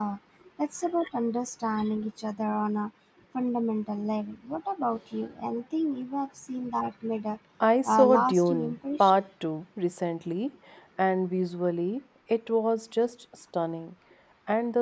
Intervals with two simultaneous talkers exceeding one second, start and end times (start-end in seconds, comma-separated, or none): 7.8-9.2